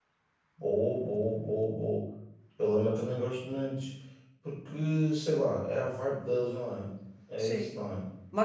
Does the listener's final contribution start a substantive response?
Yes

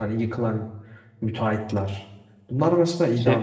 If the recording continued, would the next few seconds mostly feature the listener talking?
No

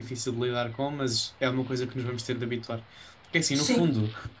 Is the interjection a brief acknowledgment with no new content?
Yes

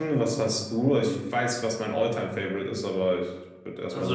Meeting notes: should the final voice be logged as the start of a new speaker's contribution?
Yes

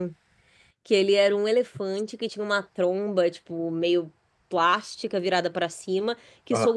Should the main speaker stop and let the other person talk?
No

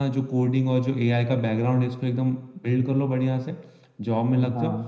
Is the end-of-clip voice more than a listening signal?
No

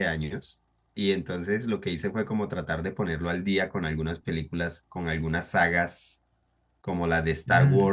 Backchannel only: Yes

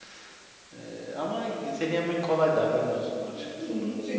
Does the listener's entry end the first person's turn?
Yes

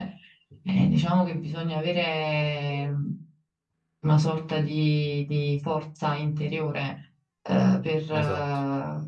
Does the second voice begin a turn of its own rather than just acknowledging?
No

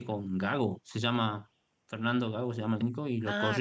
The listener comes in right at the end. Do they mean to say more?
Yes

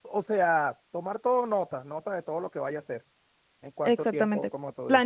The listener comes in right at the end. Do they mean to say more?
Yes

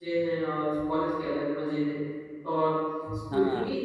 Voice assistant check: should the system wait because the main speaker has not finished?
Yes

